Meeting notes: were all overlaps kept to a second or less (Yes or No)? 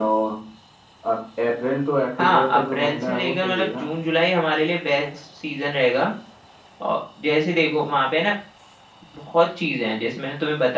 No